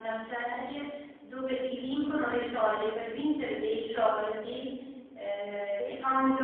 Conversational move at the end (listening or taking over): listening